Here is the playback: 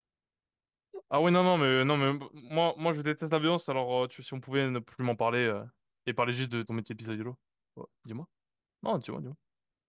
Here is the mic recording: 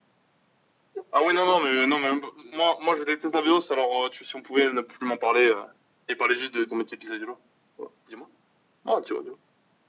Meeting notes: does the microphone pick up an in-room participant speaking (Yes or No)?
No